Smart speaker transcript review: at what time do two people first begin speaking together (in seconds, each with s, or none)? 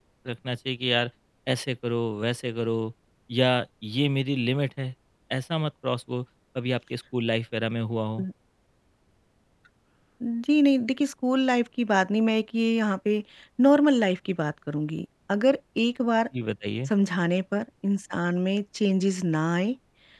none